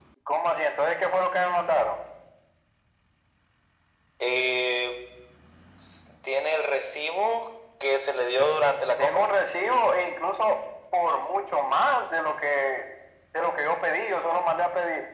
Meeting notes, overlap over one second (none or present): none